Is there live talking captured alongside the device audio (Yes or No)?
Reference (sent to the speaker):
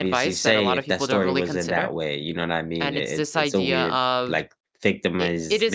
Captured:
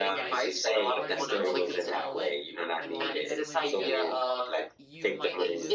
Yes